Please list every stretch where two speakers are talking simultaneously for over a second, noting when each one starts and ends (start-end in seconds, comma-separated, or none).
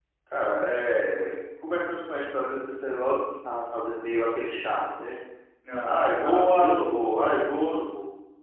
5.8-7.3